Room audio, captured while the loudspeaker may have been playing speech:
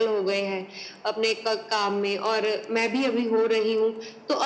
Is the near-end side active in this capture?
No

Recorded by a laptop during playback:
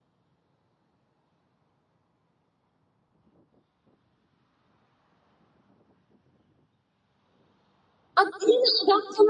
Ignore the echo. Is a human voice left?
Yes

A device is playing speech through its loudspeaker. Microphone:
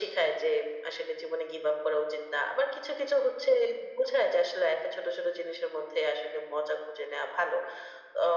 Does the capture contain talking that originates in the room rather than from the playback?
No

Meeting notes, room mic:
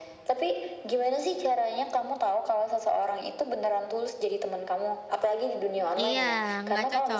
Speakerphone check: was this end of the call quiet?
No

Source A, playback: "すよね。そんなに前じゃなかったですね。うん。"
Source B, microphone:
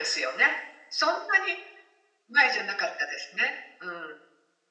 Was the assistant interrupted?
No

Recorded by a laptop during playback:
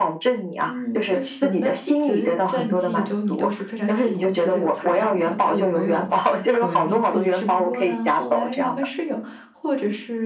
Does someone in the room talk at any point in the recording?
Yes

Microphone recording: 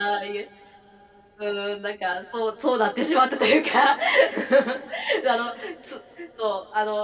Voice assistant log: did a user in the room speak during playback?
No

